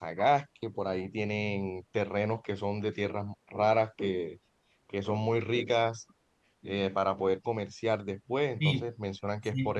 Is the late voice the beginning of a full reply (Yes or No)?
Yes